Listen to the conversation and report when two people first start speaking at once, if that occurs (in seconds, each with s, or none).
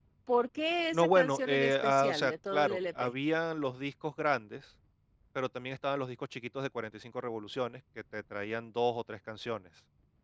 0.9 s